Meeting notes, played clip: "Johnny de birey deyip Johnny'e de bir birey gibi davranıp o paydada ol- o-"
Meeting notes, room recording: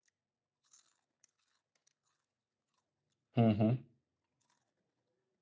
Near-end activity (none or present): present